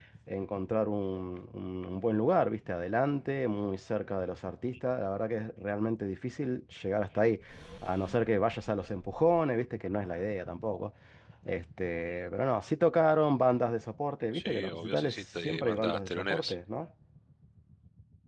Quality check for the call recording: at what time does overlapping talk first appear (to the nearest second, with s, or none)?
14 s